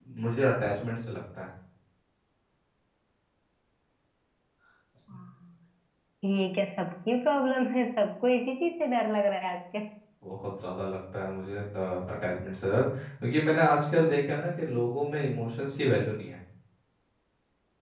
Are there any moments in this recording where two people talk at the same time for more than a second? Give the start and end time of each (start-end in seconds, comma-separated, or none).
none